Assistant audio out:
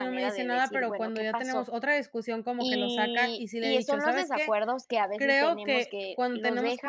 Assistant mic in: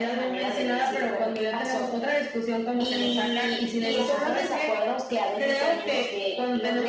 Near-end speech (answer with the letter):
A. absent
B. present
B